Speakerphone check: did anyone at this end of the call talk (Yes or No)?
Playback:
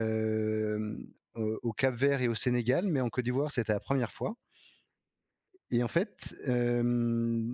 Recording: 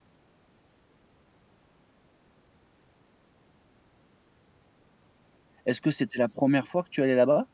Yes